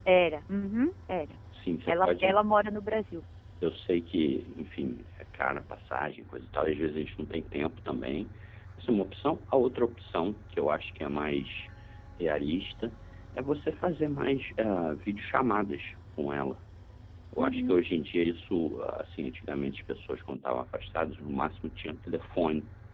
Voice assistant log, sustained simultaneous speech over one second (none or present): none